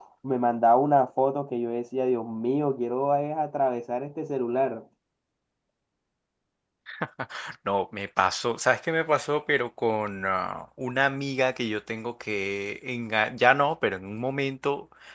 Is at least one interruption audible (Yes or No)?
No